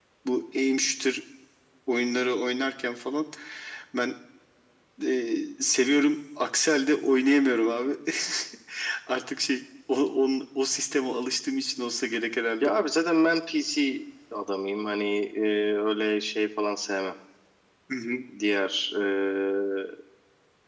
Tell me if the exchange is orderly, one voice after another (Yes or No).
Yes